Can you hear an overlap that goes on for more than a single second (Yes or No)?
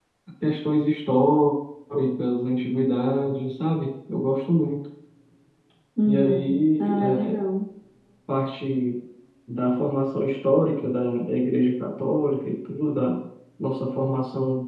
Yes